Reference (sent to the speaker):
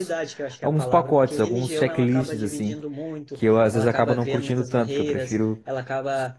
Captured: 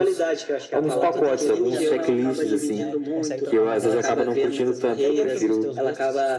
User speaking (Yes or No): Yes